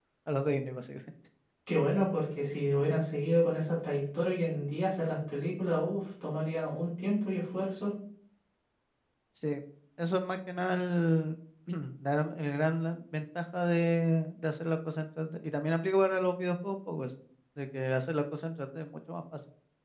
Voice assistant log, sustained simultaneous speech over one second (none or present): none